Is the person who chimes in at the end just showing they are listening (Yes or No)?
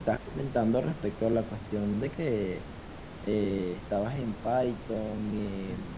Yes